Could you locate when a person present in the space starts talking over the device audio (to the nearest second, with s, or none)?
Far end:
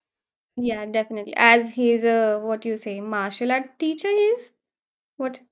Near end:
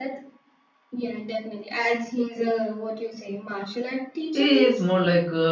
4 s